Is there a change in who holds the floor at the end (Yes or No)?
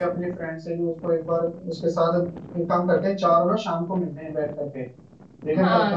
Yes